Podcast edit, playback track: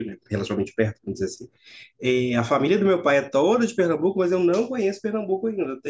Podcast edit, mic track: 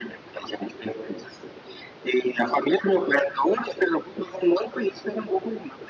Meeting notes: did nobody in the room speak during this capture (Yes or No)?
Yes